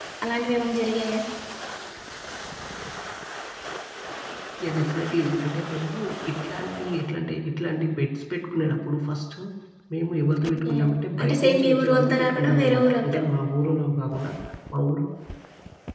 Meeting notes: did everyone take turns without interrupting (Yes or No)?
No